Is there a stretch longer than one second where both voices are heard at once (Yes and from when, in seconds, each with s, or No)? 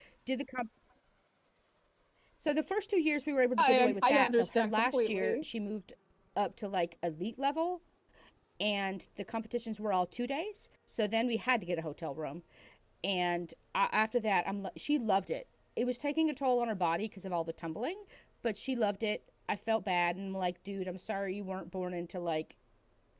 Yes, from 3.6 s